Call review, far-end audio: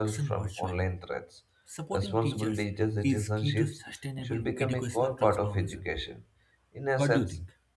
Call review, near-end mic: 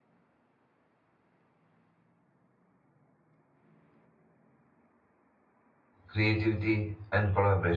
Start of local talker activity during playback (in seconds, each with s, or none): 6.0 s